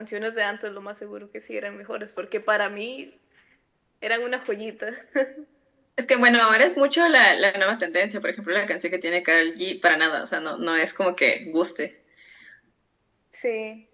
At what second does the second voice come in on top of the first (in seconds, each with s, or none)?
none